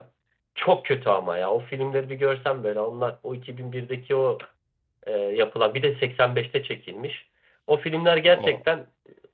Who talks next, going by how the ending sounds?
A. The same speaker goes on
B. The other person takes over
A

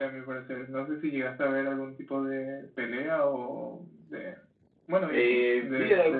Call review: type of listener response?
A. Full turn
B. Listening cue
A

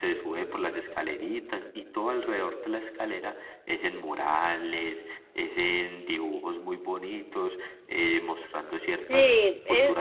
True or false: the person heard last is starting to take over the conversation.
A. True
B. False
A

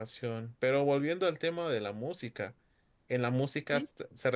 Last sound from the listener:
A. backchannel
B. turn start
A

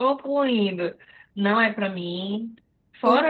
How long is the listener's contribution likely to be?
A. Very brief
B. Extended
A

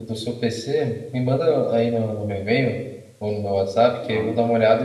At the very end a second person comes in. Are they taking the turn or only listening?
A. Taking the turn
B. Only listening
B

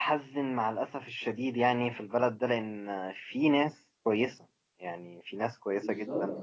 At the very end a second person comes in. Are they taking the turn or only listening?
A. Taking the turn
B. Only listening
B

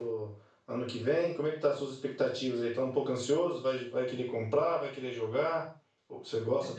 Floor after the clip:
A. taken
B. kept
A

